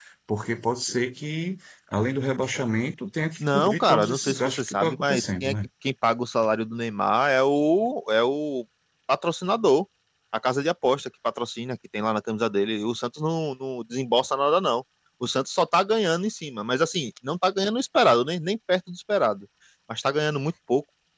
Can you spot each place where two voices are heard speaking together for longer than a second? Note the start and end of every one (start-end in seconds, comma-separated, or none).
3.4-5.5